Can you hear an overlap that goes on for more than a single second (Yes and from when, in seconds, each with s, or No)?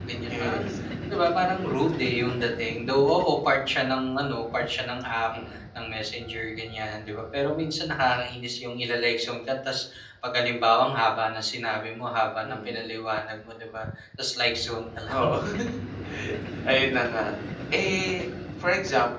No